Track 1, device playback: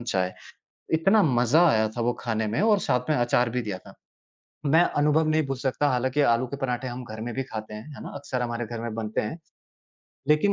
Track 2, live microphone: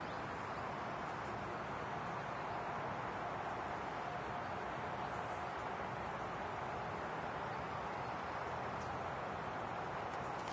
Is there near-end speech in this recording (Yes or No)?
No